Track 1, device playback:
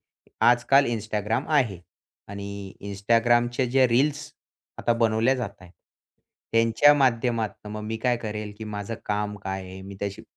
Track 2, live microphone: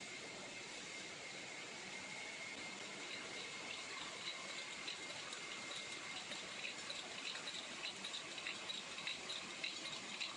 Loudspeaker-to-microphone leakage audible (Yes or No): No